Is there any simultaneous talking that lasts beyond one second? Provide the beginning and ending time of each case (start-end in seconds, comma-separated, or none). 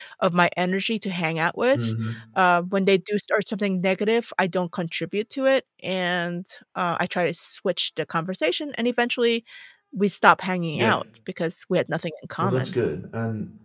none